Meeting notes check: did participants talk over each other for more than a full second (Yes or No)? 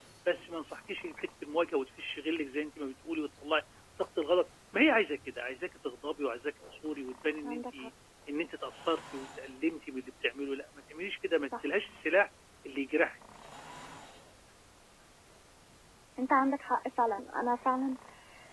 No